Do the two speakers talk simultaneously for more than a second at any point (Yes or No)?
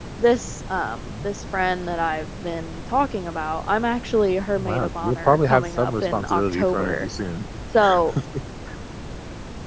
Yes